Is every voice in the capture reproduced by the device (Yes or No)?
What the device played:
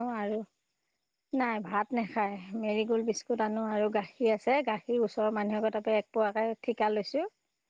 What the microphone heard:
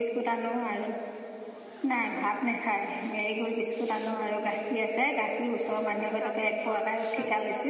No